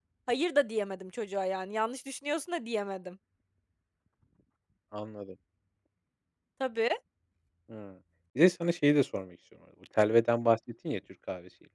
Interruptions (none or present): none